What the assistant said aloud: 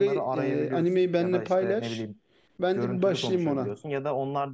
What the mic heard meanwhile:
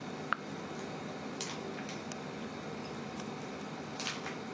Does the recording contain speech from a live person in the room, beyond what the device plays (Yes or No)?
No